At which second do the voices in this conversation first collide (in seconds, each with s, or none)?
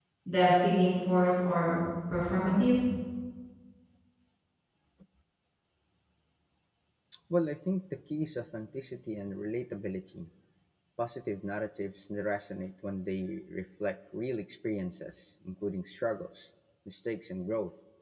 none